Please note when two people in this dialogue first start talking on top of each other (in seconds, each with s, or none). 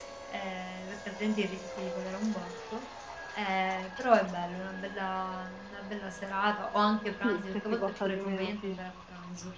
7.1 s